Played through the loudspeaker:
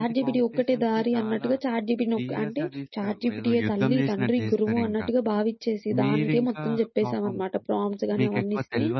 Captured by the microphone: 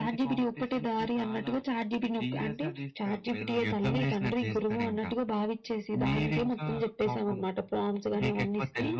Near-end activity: none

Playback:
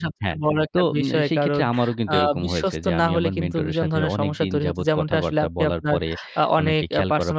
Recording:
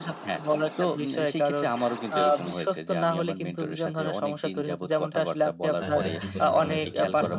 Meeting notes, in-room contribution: present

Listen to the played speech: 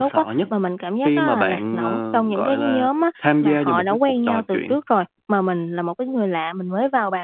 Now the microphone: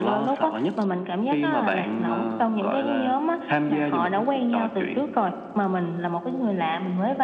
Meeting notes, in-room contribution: none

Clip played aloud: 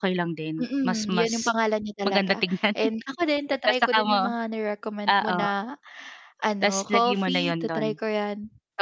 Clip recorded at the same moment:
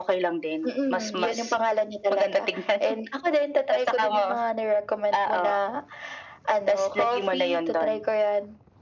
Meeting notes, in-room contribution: none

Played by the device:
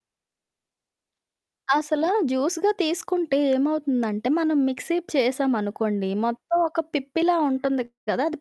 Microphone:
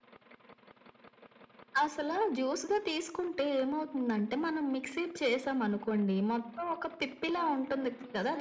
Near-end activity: present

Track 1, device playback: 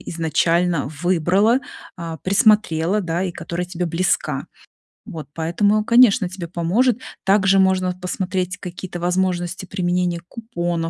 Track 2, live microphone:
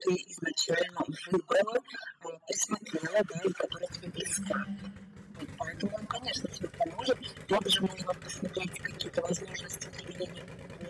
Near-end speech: present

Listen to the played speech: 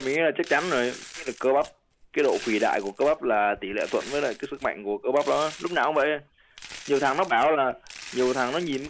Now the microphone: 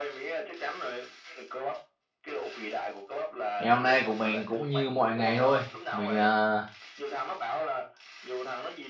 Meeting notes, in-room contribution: present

